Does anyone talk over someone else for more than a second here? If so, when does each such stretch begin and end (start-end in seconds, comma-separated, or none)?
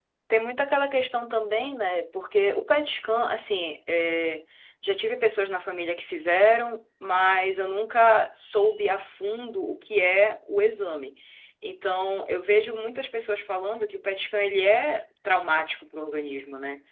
none